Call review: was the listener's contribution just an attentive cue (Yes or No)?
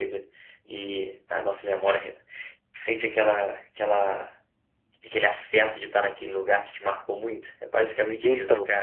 No